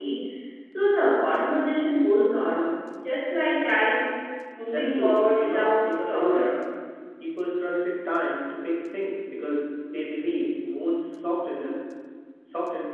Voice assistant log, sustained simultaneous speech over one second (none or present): present